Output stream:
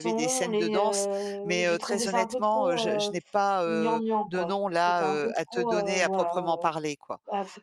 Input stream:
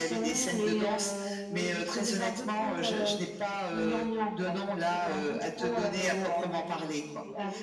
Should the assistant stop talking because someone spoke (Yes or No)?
Yes